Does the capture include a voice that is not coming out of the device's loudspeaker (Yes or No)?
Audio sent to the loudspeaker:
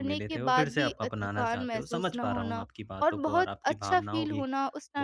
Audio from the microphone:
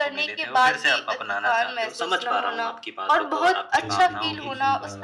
Yes